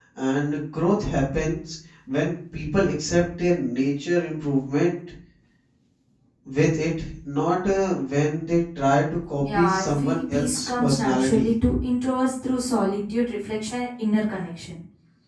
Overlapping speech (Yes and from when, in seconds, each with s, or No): Yes, from 9.4 s